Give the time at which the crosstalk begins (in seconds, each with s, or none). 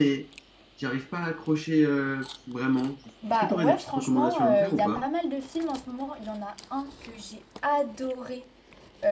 3.2 s